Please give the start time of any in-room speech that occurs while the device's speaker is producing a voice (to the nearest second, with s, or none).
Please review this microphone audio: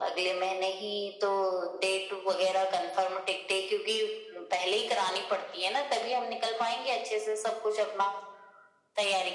none